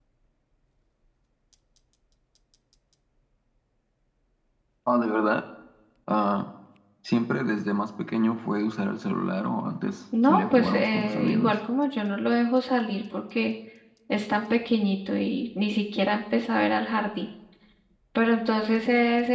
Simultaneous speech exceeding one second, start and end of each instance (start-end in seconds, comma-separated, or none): 10.3-11.6